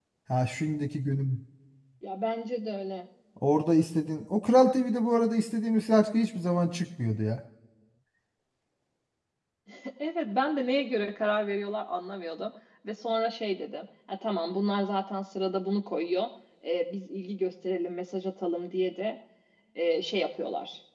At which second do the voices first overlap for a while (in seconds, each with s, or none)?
none